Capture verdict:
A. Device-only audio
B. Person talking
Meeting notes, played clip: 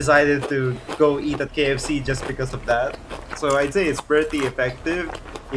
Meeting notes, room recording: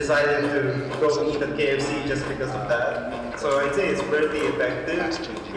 B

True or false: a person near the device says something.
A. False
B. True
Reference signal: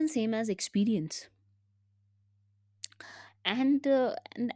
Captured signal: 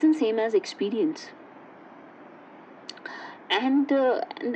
A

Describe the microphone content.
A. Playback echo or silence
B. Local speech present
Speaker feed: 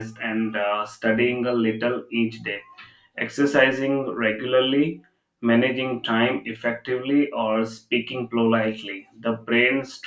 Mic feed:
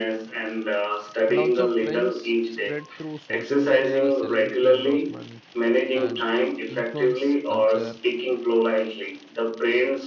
B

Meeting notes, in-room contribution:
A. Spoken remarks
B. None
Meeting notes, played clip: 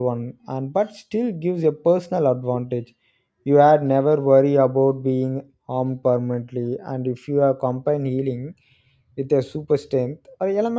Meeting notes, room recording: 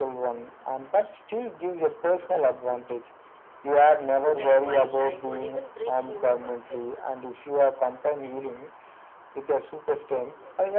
A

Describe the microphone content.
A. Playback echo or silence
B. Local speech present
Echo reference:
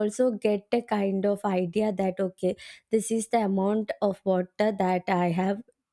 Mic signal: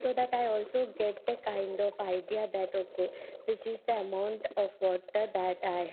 A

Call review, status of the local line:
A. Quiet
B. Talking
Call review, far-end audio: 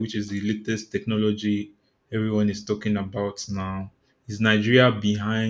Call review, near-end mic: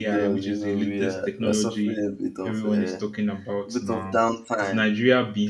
B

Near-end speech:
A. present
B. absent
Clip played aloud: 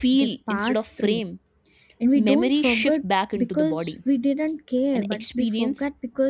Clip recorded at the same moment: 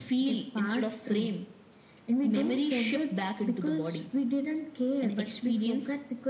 B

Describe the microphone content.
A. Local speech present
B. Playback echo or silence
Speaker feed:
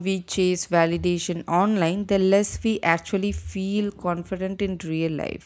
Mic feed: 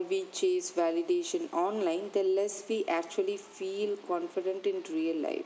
B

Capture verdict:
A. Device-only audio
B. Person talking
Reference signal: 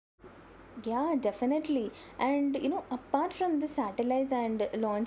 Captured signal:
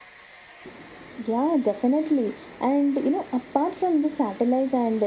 A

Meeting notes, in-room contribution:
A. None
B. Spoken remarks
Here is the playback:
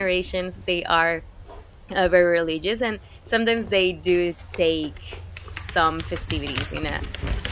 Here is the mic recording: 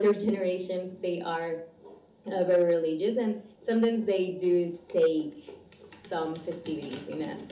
A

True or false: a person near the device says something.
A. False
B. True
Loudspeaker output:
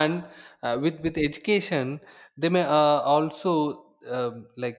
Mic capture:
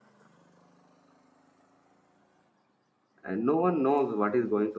B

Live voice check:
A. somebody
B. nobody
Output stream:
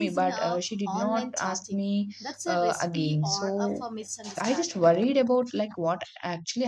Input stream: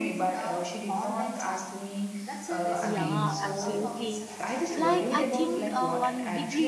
A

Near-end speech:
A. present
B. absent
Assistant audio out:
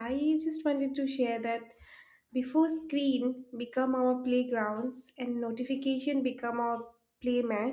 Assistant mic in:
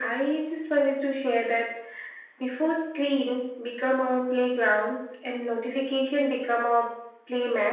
B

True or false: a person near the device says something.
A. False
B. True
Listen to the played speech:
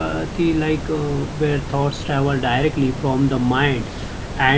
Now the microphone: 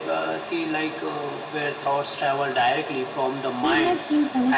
B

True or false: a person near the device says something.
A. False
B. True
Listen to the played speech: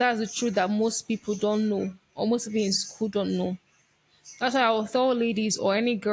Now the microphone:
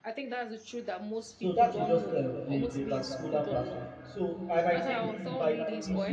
B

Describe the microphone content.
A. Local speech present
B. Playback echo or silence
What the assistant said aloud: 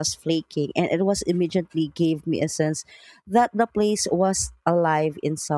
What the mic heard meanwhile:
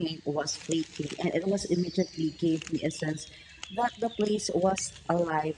B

